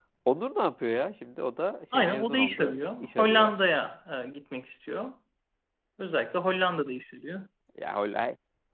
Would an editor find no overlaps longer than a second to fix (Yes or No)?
No